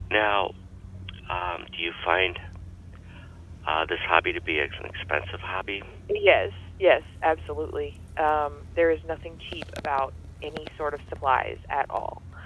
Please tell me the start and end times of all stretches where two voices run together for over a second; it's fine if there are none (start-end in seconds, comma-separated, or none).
none